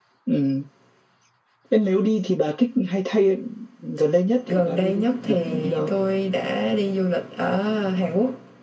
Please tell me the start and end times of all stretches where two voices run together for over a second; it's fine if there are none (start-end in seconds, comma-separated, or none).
4.5-5.9